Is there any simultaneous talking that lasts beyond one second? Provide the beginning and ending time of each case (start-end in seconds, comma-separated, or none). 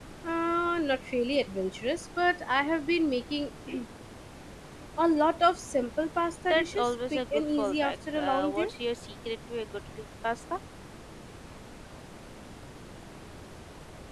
6.5-8.7